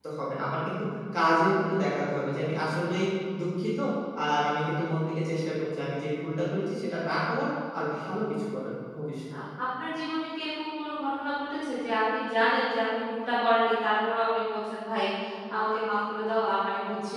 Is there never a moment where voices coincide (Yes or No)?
Yes